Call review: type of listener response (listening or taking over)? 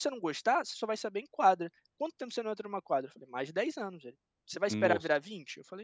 listening